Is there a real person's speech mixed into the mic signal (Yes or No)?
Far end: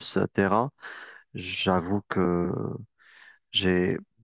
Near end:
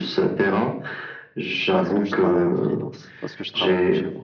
Yes